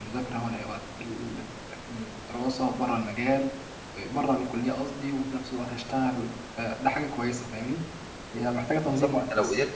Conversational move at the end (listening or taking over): taking over